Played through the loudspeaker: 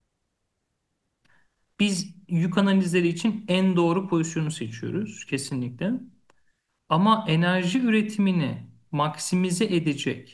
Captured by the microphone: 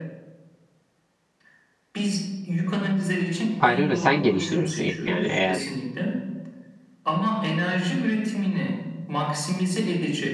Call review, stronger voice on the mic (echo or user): user